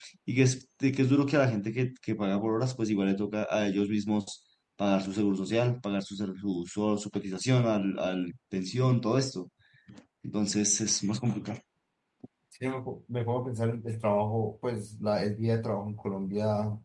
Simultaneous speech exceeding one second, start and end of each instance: none

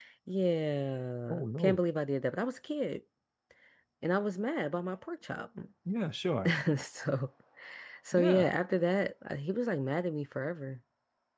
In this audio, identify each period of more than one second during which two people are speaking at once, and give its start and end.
none

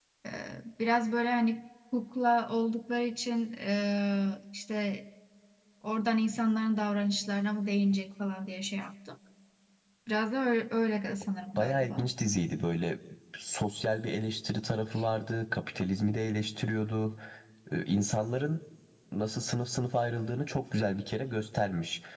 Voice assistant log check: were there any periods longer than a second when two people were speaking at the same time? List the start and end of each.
none

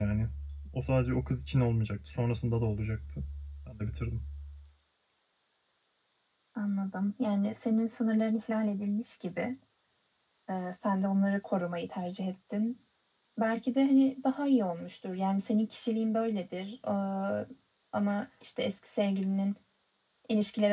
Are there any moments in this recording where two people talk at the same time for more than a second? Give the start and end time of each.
none

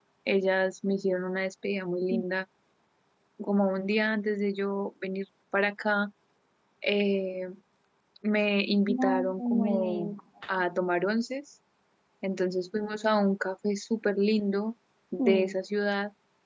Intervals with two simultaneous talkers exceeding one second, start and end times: 8.9-10.1

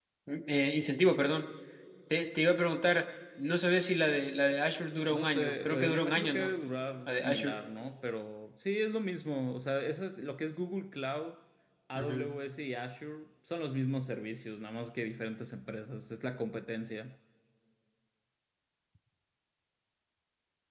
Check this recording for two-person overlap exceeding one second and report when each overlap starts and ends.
5.1-6.5

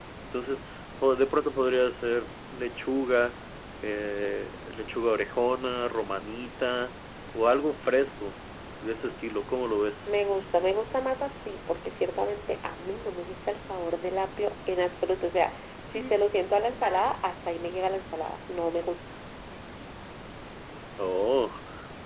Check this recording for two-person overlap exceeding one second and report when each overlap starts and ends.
none

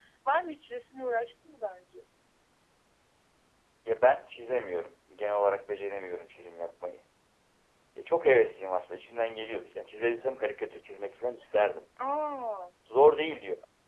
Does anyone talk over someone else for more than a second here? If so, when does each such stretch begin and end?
none

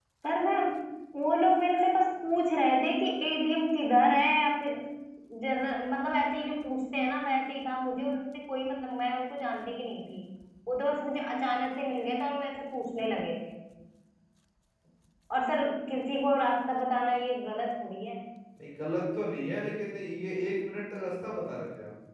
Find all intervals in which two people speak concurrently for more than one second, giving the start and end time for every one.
none

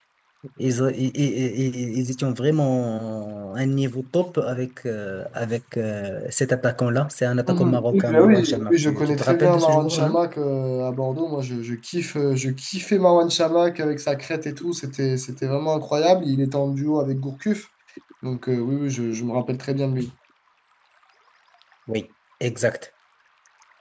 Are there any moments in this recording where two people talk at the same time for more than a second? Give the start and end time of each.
7.5-10.1

